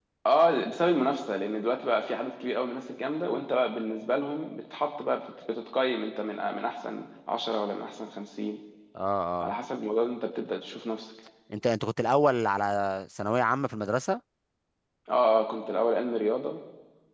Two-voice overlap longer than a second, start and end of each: none

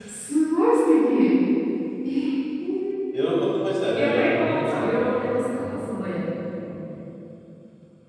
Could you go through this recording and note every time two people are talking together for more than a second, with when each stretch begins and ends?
3.9-5.8

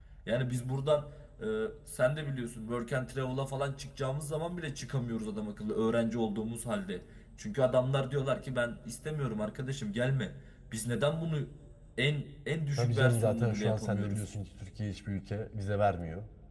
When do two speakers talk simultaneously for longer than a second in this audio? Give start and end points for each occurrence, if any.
12.8-14.2

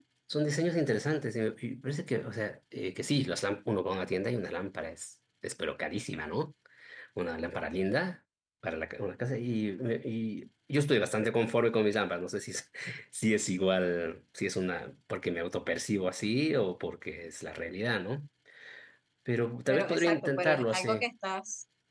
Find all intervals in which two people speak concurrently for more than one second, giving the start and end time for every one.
19.7-21.0

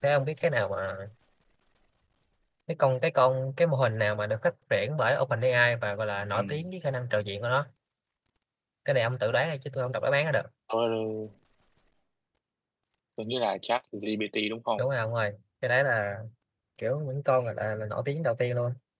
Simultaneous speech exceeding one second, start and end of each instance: none

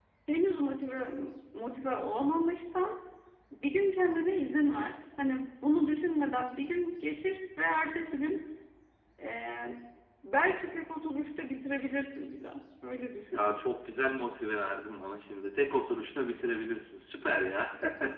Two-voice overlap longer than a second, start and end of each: none

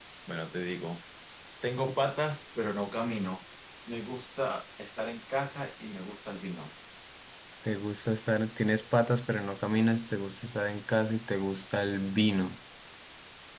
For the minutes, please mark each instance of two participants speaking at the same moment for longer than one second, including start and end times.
none

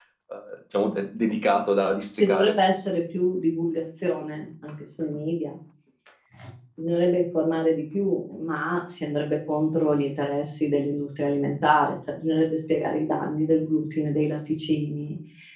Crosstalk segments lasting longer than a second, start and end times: none

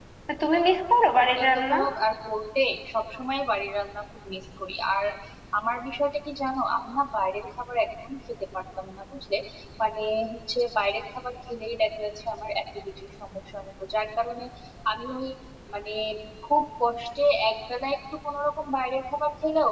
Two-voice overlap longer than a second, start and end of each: none

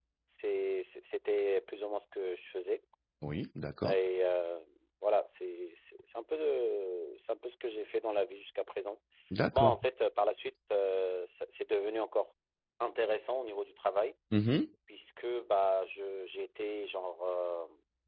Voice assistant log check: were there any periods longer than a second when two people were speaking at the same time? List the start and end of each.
none

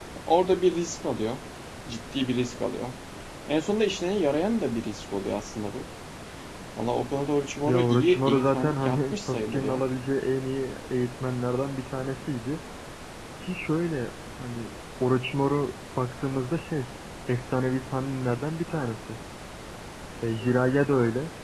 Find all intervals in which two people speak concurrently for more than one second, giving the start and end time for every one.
7.7-9.8

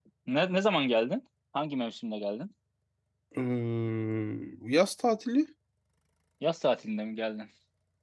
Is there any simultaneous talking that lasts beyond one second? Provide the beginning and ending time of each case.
none

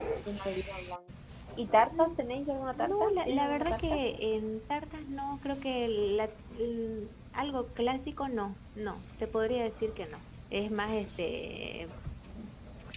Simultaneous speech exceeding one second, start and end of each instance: 2.8-4.0

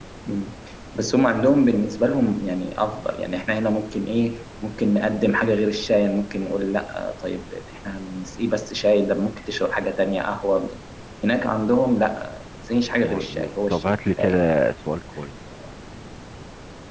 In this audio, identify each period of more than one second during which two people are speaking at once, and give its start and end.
13.0-14.5

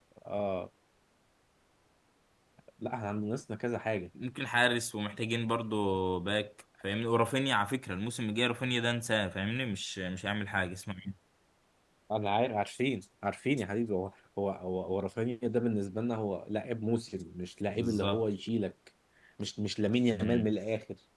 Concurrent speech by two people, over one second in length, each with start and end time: none

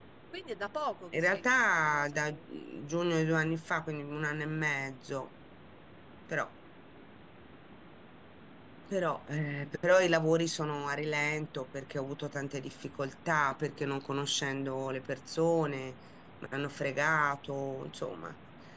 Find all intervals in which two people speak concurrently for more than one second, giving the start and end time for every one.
1.1-2.4

